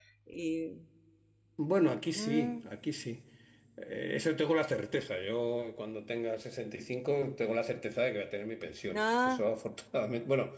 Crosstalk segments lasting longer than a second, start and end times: none

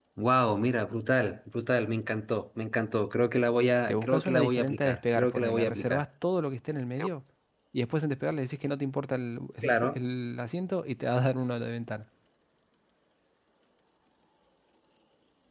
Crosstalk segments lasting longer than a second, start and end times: 3.9-6.0

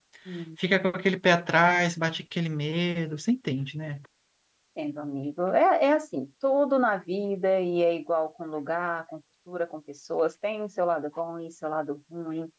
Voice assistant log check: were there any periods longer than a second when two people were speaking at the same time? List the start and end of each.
none

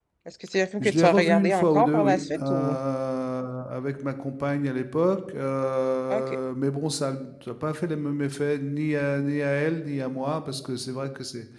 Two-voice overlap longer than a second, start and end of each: 0.8-2.7

